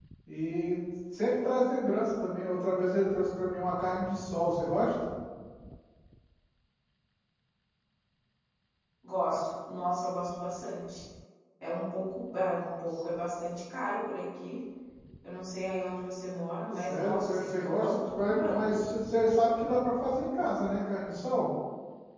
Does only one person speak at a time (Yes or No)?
No